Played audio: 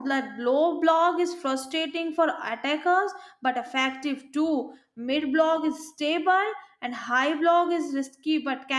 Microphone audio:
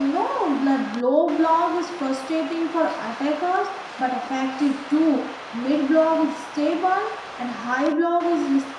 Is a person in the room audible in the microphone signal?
No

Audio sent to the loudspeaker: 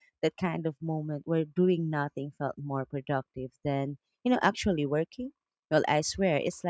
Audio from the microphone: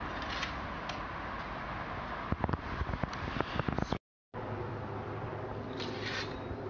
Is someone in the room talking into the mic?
No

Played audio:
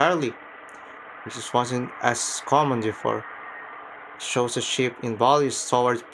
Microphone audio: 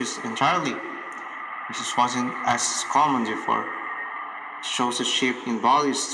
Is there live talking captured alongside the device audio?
No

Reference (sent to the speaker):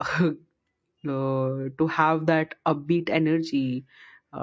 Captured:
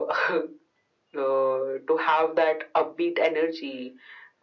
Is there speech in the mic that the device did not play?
No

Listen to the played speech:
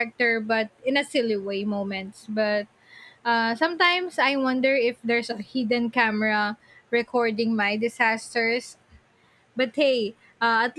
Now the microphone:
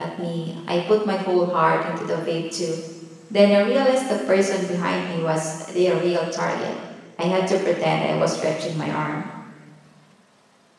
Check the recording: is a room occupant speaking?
Yes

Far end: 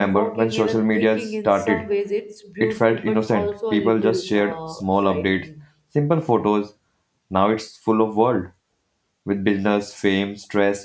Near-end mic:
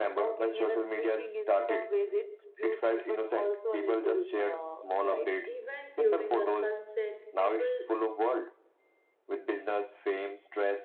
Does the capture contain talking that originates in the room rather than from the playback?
Yes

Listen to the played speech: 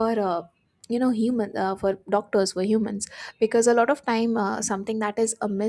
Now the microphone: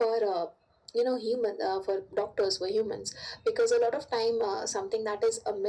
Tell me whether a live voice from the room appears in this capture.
No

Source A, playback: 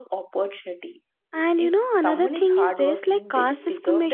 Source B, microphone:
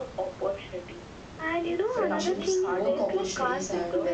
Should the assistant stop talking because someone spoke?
Yes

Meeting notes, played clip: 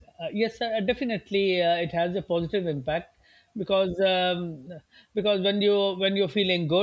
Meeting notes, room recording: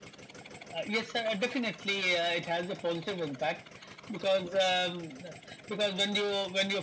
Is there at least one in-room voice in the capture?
No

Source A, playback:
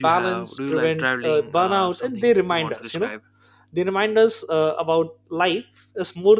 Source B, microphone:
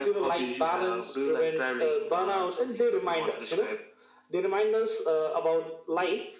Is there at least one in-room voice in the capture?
No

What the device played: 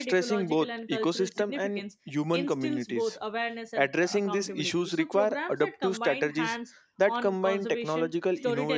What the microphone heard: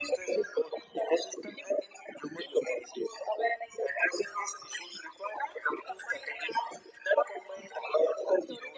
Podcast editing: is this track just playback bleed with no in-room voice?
Yes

